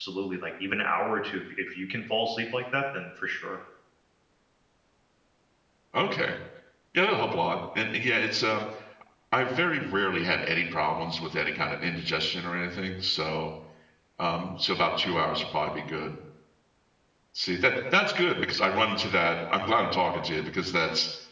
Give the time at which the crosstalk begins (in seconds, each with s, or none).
none